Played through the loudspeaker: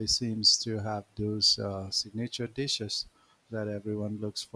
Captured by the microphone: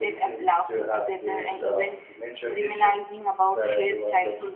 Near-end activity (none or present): present